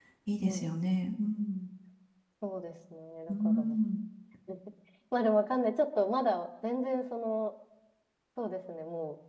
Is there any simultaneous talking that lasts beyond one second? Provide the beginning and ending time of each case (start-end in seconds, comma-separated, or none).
none